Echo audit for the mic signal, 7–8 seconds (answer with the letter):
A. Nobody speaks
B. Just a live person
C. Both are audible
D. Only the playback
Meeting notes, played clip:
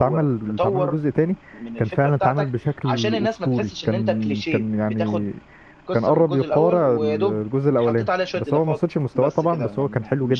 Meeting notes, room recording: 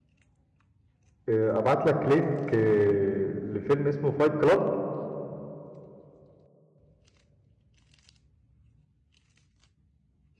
A